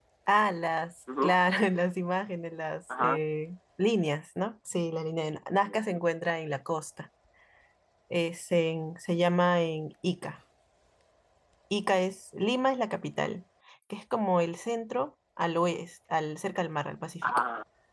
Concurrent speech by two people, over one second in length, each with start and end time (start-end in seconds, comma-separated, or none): none